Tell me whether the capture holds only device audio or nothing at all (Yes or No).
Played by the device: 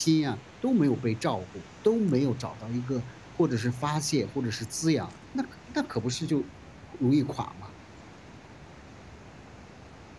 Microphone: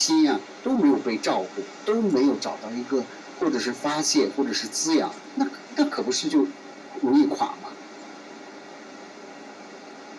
Yes